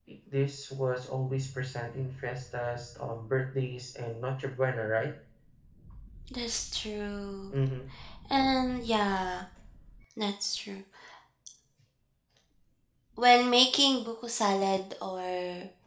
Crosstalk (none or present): none